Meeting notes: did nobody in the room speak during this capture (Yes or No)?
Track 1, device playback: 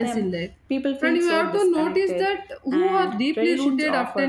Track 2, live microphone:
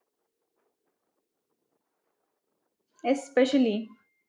No